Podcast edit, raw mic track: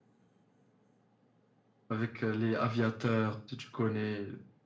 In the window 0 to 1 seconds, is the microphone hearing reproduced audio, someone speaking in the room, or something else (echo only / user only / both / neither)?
neither